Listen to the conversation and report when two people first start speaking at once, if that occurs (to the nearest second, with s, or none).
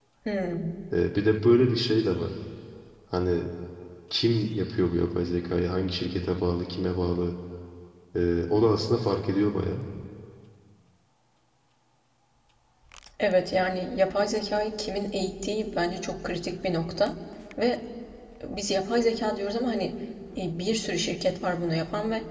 none